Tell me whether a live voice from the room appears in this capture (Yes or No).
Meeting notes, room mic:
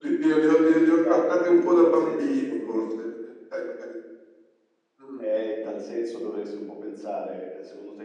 No